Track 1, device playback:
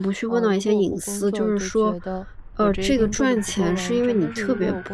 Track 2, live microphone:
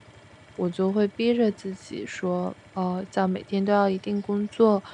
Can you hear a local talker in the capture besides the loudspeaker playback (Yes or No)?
Yes